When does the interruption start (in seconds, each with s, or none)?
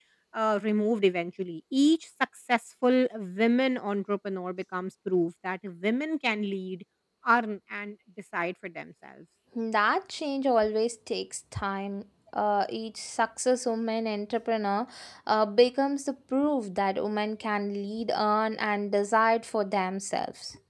none